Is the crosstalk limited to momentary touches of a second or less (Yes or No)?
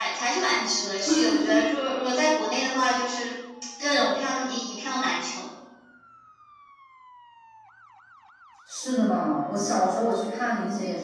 Yes